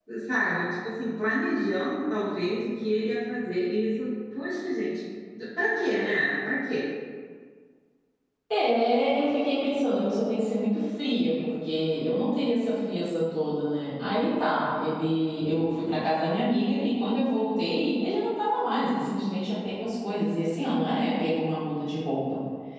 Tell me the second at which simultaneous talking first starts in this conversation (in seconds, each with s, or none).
none